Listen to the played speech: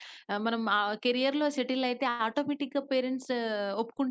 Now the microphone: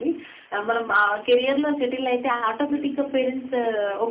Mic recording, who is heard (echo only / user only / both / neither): both